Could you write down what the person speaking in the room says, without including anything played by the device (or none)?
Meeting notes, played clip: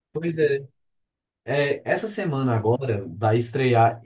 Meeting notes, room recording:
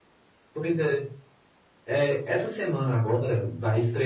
none